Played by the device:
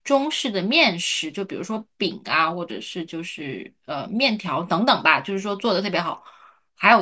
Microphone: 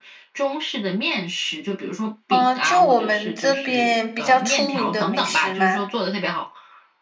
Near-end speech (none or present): present